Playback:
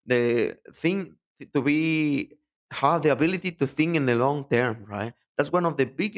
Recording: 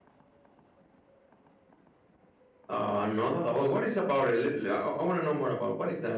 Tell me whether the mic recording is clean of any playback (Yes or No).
Yes